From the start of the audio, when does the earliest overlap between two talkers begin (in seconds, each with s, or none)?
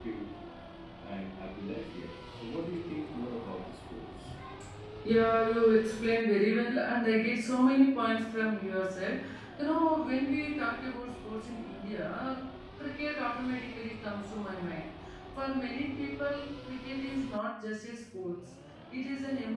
none